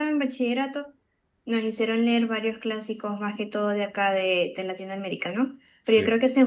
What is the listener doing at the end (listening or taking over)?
listening